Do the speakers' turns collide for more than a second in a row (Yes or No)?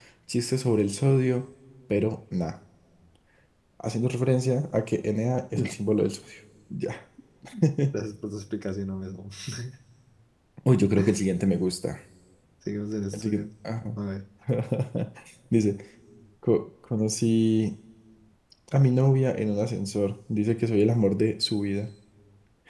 No